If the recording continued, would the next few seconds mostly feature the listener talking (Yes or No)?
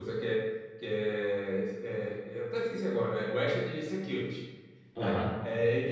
No